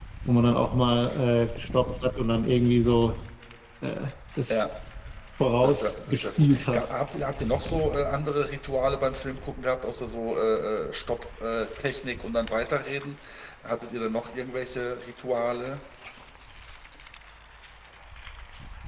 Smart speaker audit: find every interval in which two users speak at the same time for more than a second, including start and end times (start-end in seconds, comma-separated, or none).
5.6-6.9